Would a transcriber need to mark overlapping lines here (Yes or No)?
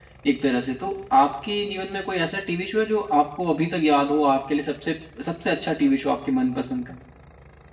No